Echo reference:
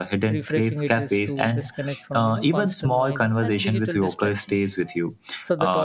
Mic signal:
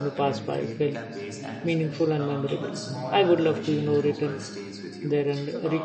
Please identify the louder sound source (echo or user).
user